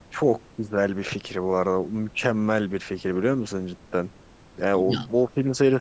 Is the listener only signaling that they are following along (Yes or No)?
Yes